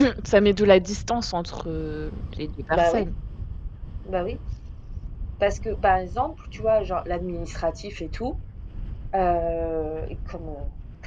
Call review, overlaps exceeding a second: none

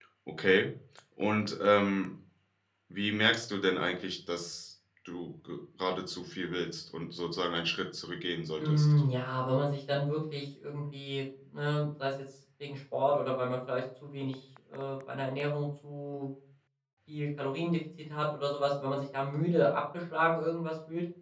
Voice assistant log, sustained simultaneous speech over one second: none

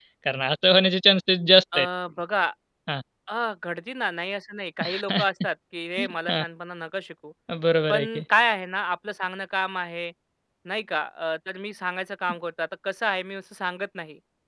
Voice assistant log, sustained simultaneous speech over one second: none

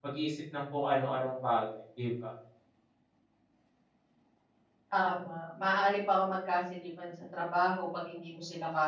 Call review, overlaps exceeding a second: none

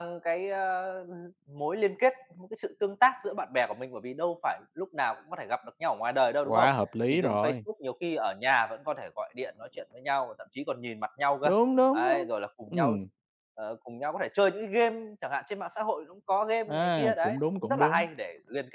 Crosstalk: present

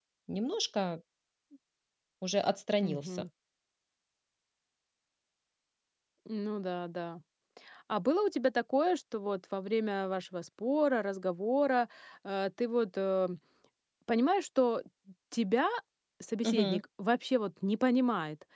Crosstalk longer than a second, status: none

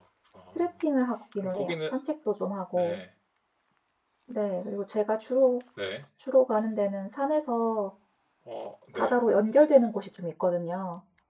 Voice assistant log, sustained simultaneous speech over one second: none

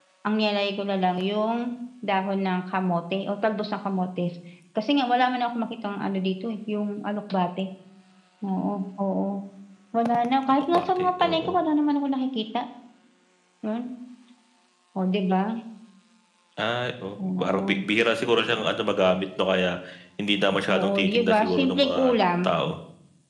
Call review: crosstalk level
present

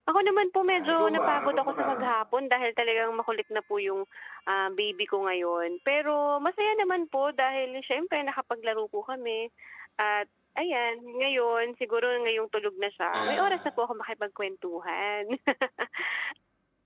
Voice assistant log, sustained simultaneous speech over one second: present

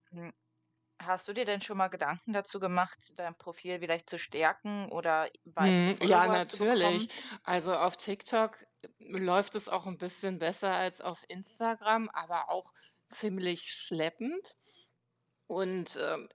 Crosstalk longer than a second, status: present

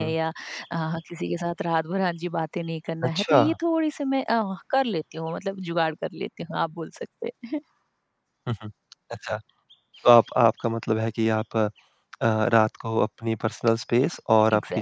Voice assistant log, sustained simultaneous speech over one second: none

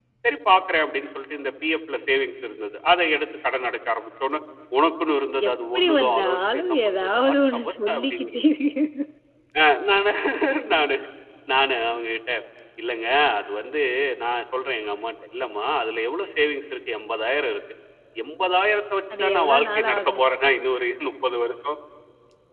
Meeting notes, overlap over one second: present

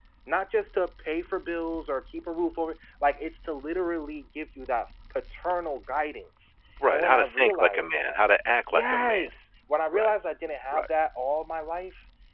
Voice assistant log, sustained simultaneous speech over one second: present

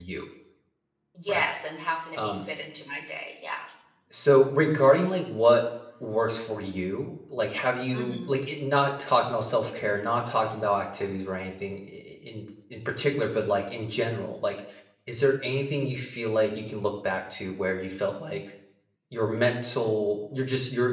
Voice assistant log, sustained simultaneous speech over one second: none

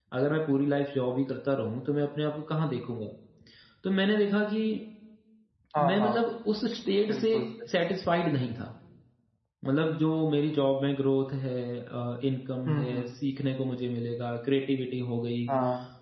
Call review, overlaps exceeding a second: none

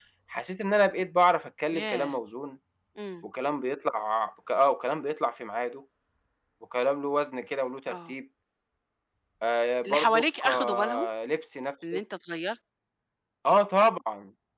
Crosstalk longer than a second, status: present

